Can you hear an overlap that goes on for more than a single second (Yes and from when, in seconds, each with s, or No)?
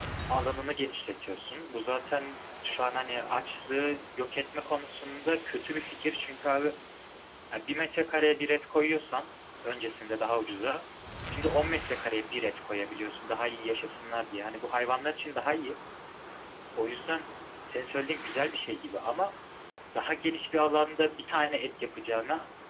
No